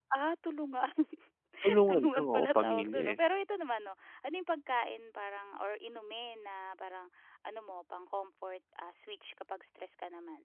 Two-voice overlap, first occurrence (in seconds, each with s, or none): 1.9 s